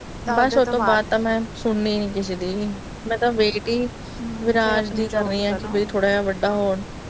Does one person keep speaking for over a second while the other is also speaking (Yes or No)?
Yes